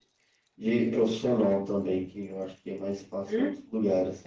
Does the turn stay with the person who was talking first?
No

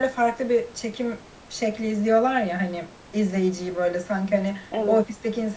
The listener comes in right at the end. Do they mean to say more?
No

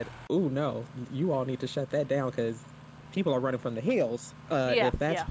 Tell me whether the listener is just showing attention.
Yes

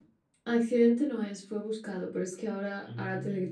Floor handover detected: No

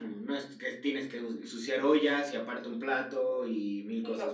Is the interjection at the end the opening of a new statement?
Yes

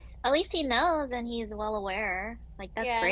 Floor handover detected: Yes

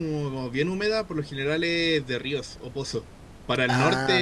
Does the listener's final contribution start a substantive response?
No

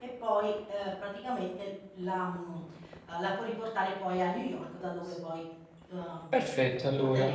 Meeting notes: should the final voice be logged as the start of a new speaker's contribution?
Yes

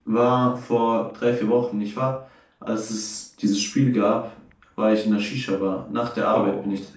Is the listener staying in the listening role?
Yes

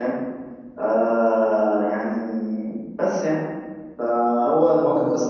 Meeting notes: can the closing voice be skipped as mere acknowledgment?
Yes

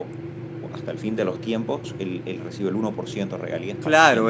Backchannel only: No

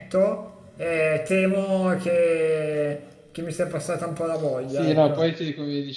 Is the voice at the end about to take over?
Yes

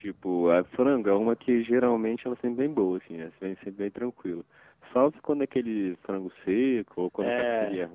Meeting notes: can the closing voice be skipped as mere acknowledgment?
No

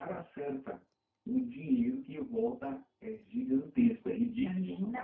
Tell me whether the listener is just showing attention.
No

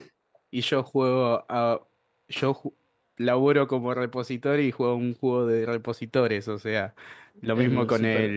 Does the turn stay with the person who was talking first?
Yes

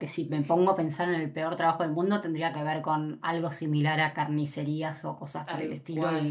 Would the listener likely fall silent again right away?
Yes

